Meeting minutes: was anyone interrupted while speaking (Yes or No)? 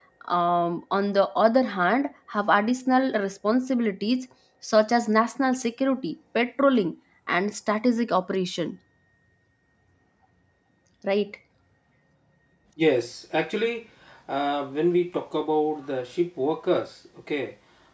No